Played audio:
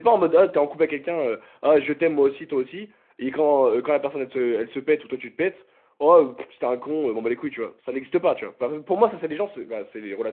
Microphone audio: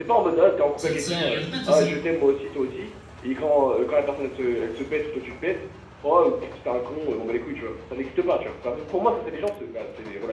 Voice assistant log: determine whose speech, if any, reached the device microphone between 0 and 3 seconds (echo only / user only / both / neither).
both